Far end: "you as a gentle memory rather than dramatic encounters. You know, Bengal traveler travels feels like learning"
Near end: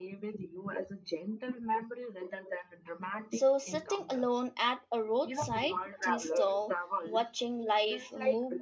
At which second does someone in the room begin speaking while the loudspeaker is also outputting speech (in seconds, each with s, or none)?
3.3 s